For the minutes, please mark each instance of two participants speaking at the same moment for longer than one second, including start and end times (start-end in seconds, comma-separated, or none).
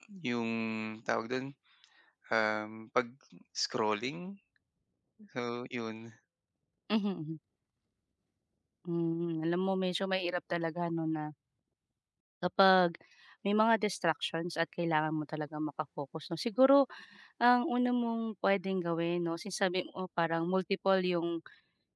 none